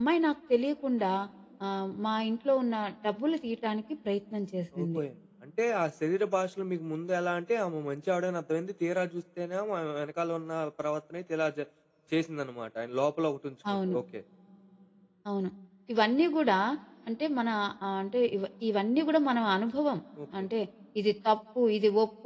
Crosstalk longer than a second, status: none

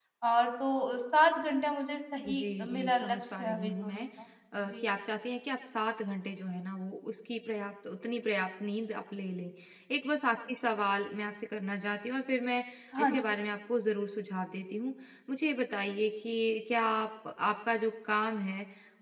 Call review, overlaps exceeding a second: present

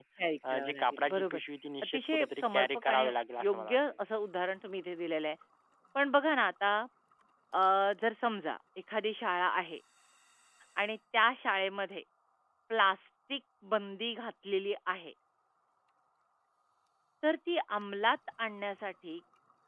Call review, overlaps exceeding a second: present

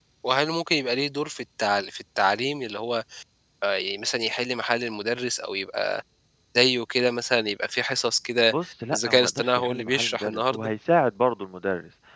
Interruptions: present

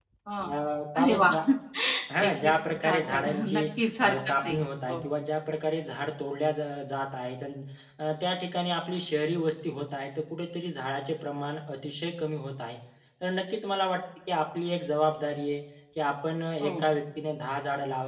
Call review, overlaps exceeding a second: present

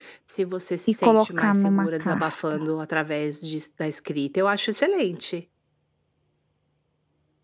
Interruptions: present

